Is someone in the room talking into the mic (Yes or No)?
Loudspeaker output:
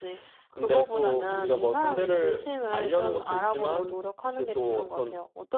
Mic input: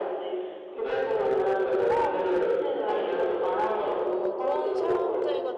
Yes